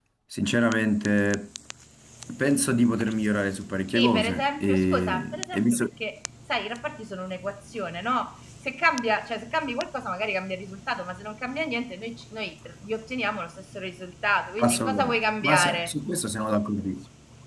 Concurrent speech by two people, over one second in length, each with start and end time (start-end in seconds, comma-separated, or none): 3.9-5.9, 14.6-15.9